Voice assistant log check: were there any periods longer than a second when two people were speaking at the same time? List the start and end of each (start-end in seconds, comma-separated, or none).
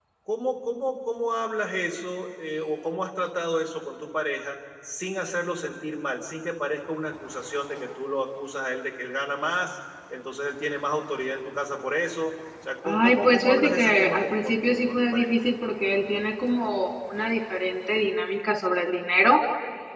12.8-15.2